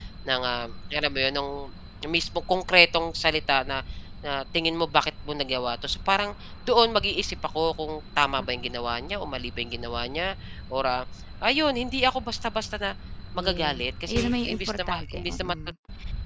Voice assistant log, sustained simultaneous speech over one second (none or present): present